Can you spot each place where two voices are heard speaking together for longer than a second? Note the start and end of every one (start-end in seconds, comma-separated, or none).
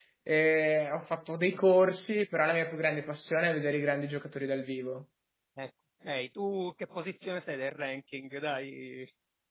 none